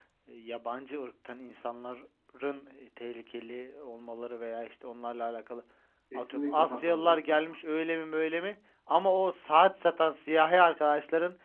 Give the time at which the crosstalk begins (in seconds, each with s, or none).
6.1 s